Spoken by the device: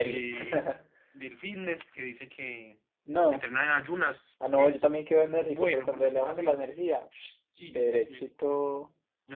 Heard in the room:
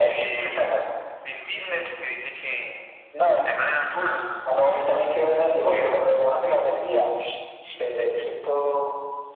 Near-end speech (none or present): none